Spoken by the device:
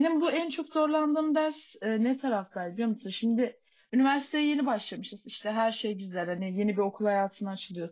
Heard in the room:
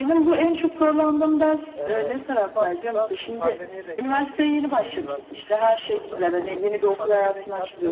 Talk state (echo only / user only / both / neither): both